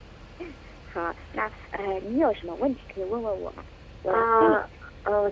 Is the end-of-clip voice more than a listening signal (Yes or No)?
Yes